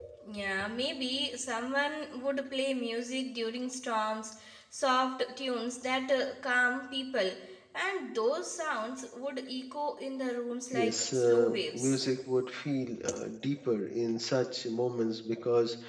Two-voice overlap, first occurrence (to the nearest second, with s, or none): 11 s